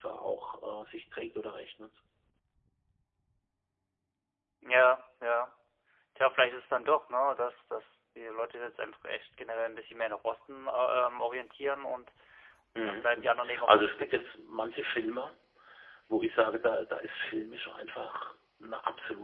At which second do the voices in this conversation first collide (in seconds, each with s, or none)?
12.8 s